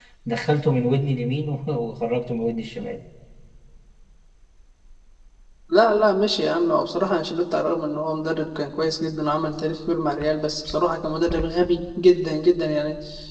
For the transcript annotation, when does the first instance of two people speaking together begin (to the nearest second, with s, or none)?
none